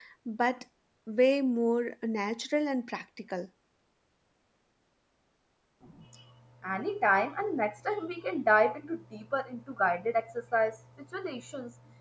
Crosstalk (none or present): none